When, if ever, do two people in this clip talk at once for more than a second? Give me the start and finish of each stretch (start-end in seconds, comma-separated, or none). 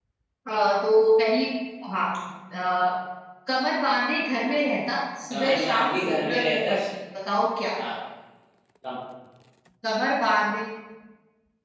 5.3-6.7